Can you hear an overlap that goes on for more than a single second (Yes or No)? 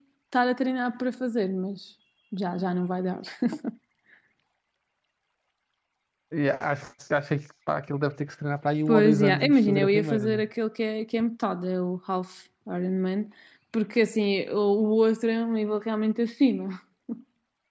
Yes